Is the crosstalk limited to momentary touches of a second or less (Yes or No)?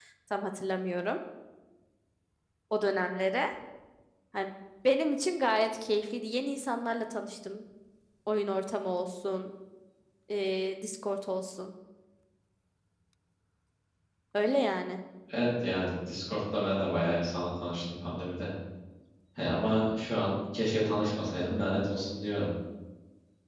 Yes